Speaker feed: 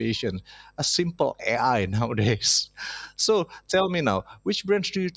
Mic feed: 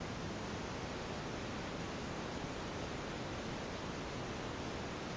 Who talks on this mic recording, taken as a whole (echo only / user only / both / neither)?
neither